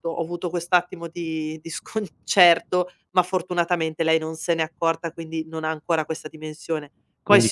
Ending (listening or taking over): listening